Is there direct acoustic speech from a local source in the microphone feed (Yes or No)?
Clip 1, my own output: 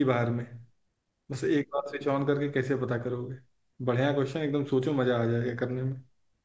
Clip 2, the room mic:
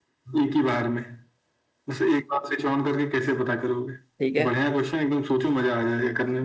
Yes